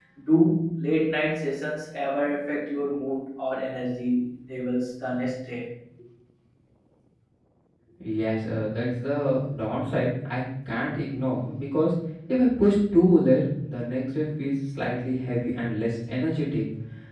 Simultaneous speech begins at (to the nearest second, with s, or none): none